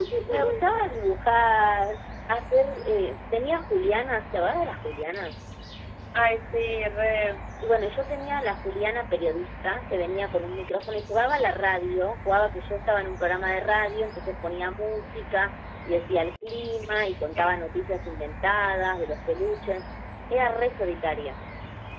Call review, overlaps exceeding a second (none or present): none